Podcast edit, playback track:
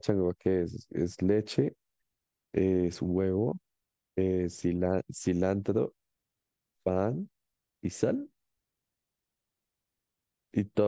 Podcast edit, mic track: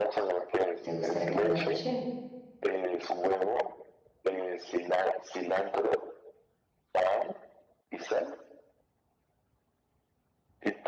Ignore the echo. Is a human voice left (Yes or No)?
Yes